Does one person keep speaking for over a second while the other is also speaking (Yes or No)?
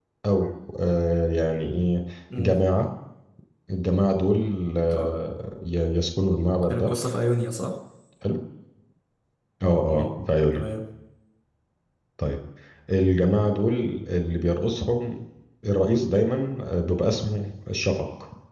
No